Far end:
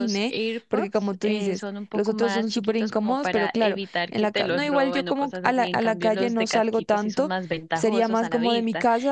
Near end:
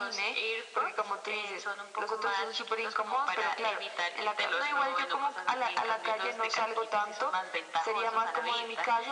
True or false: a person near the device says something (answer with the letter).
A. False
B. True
A